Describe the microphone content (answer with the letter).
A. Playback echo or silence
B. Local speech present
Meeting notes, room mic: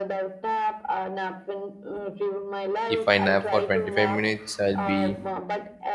B